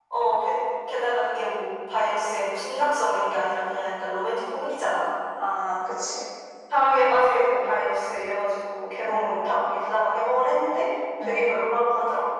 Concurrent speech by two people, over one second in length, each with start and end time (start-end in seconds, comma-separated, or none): none